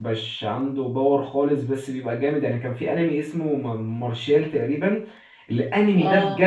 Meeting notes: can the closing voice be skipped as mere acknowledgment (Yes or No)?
Yes